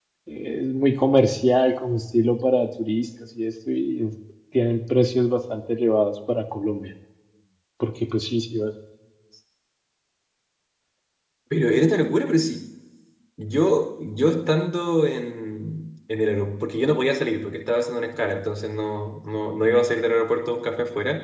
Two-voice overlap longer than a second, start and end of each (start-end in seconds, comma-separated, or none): none